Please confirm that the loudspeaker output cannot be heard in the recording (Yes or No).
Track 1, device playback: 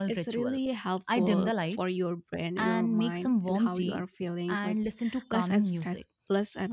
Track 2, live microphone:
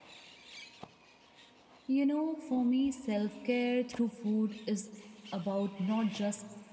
Yes